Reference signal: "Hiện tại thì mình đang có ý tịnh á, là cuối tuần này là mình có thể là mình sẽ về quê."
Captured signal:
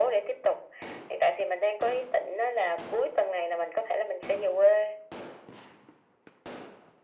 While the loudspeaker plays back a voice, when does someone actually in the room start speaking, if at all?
none

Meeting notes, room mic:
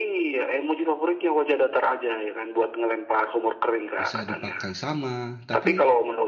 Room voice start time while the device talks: 4 s

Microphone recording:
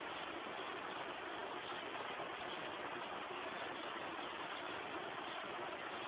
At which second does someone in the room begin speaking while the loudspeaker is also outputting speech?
none

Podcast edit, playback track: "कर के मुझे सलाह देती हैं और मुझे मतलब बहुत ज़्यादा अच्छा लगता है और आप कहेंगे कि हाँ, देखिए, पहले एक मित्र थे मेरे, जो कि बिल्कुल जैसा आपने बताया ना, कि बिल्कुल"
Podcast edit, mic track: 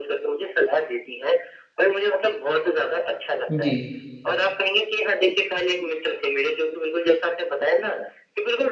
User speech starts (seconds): 3 s

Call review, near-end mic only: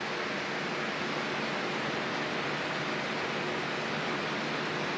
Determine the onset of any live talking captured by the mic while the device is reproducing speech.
none

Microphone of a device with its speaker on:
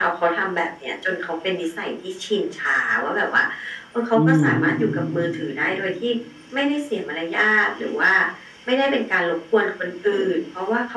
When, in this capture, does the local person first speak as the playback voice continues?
4 s

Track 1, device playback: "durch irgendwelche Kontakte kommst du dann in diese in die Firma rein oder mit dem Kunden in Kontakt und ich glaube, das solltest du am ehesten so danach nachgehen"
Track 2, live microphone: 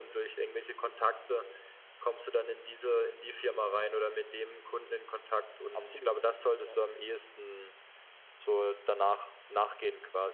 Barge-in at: 6 s

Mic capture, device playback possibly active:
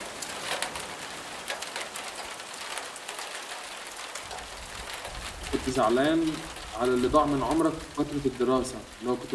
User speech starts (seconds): 5 s

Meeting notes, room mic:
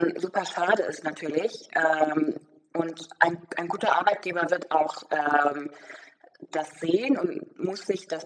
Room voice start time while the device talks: none

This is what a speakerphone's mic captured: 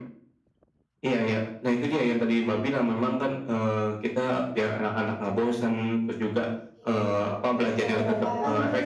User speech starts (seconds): 7 s

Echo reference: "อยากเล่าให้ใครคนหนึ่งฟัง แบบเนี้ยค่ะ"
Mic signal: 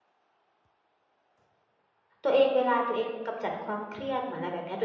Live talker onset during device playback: 2 s

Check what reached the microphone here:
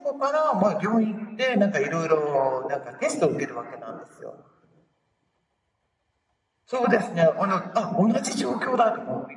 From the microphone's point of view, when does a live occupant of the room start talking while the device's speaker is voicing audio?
none

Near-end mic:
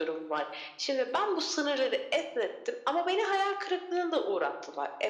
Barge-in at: none

